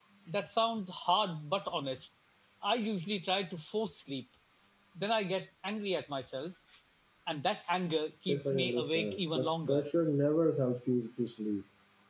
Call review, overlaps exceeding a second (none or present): present